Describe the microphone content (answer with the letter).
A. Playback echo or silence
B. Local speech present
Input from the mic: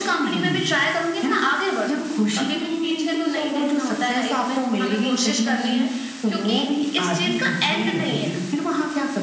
A